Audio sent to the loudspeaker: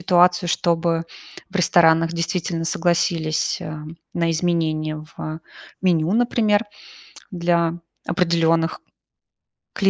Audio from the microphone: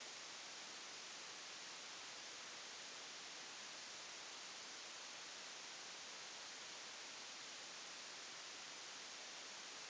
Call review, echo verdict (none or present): none